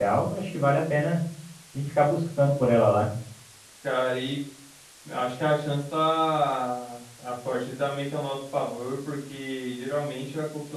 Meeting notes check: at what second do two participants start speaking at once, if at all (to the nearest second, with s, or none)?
none